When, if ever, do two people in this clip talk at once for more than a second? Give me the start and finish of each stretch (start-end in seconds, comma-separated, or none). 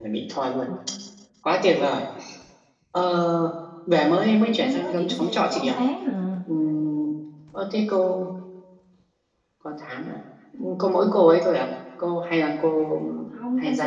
4.3-5.8